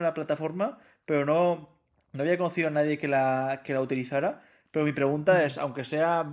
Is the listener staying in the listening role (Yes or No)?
Yes